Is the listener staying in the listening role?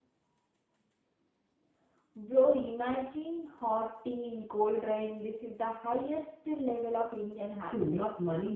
No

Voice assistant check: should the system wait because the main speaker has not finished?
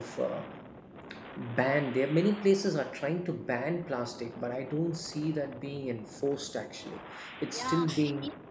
No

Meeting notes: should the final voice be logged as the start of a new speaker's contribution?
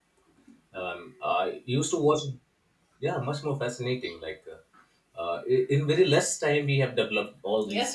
Yes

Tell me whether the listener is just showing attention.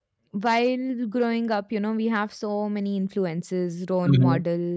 Yes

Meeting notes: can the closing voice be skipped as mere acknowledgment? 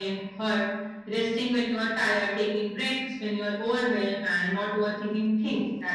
Yes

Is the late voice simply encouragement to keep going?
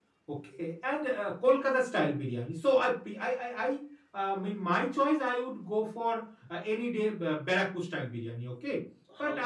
Yes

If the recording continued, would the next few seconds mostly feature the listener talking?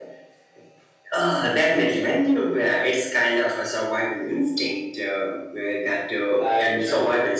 No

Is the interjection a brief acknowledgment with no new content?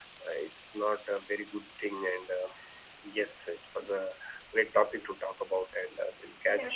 No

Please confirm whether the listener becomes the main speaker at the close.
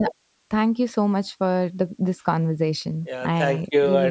Yes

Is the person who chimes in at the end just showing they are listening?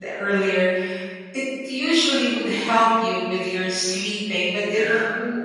Yes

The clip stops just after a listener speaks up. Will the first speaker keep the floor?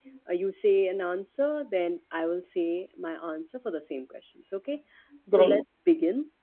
Yes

